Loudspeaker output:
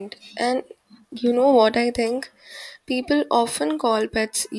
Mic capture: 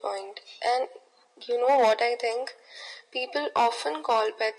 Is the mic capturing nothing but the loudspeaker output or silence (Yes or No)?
Yes